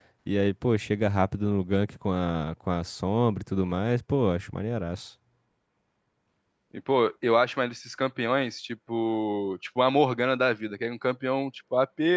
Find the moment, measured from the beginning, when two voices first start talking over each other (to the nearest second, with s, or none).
none